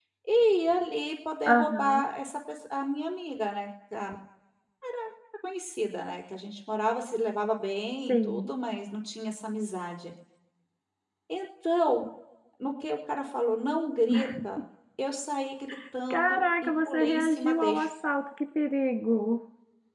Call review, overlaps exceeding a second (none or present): present